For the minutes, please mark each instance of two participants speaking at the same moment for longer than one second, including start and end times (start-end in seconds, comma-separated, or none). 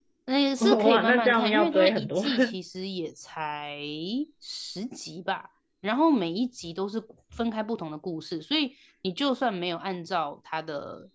0.6-2.2